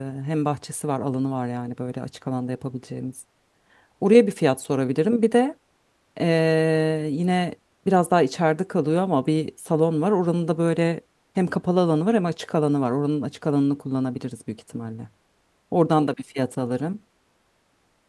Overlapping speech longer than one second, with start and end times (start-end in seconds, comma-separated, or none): none